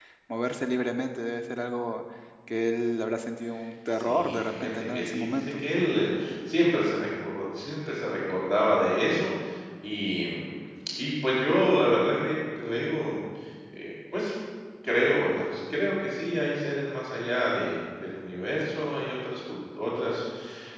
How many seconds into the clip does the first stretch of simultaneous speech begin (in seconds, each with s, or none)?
4.0 s